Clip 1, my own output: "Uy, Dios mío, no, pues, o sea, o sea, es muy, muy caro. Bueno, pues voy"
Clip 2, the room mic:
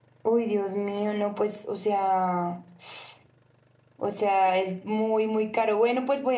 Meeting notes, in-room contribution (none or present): none